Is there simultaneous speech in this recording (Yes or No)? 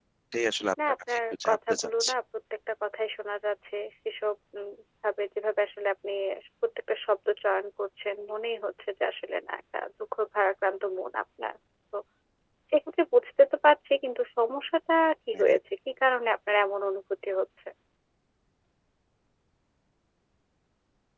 Yes